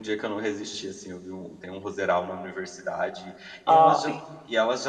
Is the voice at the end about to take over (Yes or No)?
No